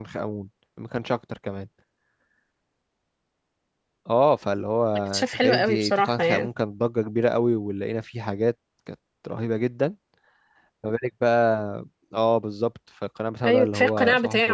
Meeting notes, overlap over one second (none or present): present